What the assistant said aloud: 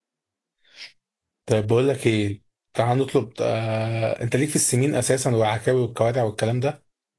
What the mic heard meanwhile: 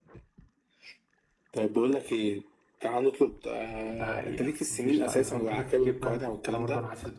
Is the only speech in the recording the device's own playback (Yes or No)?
No